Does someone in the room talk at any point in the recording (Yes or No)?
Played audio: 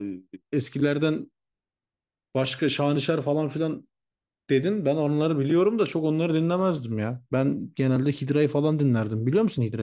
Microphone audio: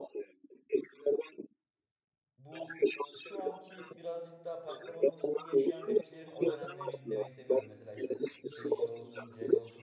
Yes